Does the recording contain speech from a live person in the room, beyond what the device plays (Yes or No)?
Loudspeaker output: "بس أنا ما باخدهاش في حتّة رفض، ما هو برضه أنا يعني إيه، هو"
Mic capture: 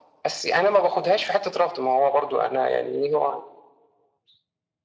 No